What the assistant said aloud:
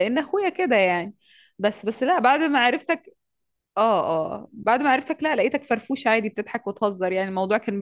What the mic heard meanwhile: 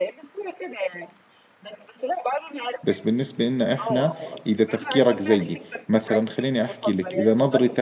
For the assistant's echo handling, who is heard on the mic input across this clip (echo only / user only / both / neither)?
both